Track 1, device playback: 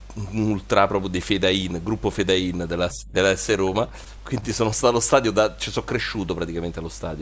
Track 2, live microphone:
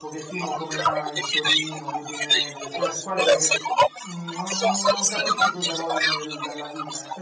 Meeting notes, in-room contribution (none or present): present